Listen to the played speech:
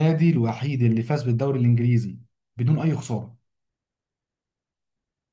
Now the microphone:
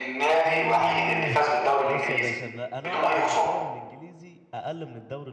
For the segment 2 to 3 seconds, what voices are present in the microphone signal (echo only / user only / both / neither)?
both